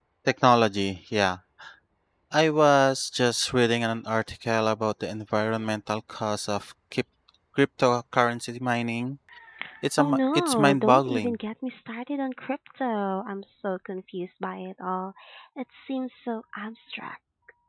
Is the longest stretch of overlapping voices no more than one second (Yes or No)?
No